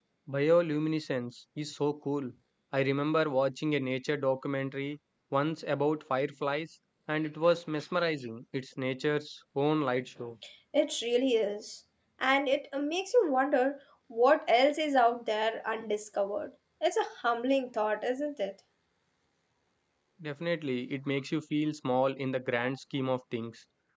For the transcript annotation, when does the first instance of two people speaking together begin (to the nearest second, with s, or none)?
none